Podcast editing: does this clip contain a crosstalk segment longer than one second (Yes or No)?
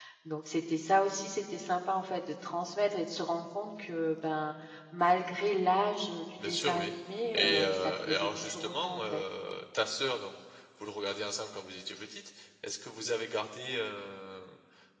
Yes